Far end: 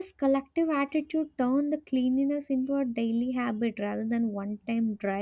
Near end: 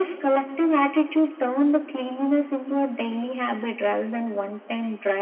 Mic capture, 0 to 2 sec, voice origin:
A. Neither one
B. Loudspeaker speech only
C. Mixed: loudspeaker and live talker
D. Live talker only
B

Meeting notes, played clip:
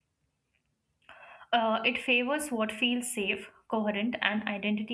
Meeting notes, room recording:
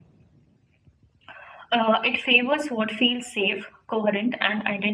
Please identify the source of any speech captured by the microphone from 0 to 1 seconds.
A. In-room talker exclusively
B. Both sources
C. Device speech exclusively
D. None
D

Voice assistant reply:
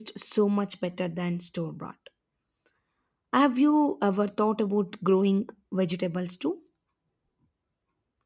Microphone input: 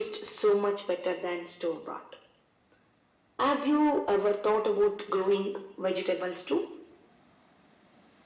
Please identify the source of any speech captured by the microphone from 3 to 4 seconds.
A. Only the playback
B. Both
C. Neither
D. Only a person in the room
A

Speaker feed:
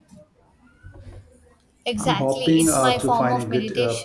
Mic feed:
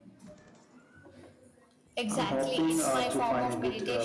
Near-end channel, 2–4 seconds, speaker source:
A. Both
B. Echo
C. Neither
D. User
B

